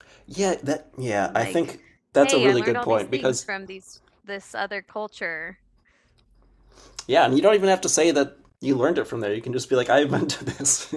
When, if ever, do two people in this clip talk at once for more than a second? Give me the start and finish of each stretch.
2.2-3.4

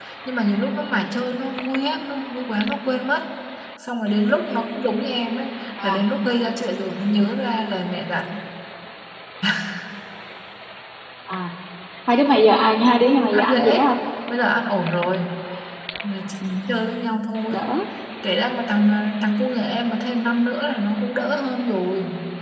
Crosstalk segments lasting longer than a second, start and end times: none

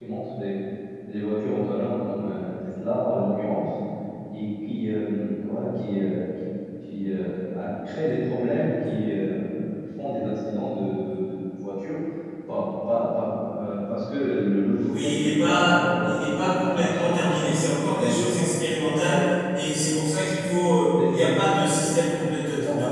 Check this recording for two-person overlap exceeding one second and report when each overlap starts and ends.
14.8-17.5, 17.9-19.3

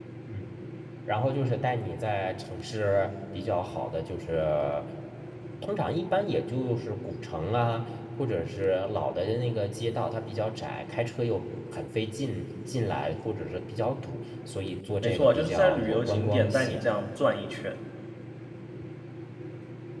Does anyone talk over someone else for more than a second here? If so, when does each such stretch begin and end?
15.0-16.9

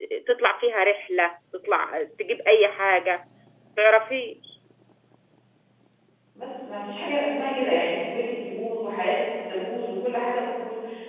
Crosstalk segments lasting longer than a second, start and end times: none

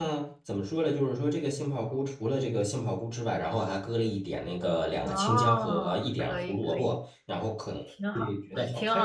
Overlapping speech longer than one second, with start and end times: 5.0-6.9

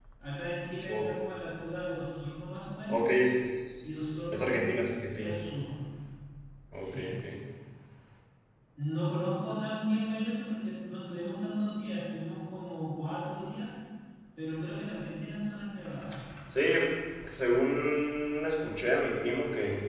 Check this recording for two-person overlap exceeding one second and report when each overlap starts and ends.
none

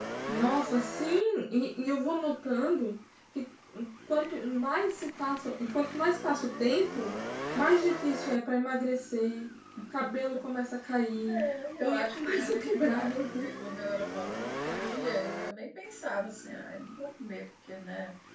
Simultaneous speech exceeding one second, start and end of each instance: 11.8-13.5

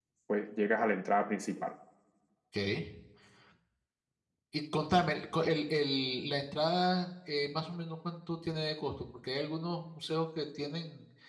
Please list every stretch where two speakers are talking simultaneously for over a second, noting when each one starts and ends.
none

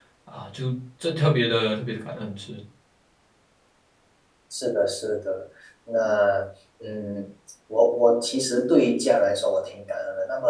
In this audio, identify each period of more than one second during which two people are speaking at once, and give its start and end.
none

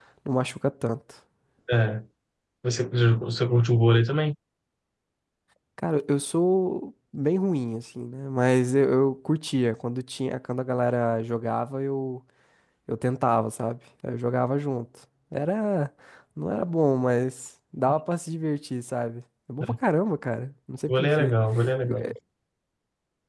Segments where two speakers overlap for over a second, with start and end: none

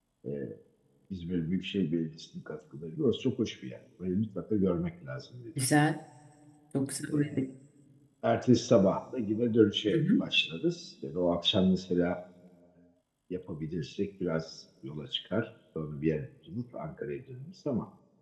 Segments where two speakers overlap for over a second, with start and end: none

